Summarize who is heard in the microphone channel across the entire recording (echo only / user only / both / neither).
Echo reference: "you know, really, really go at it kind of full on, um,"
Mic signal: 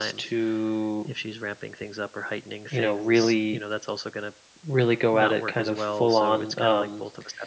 both